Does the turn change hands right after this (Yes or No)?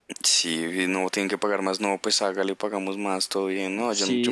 Yes